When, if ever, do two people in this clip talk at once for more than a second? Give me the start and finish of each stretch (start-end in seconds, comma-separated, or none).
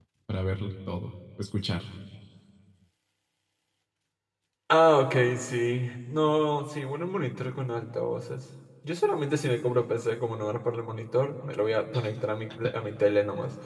none